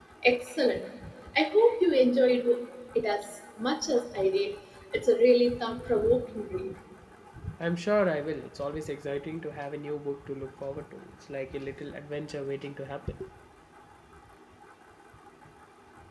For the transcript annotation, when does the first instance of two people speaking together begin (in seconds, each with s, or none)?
none